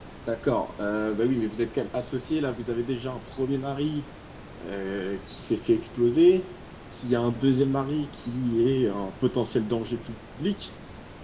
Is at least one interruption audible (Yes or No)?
No